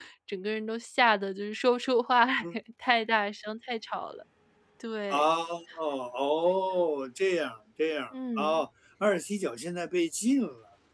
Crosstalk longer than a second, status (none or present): none